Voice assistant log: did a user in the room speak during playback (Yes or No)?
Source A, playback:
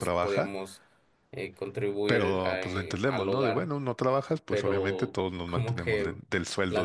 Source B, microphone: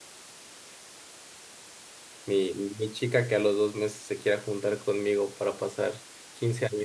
Yes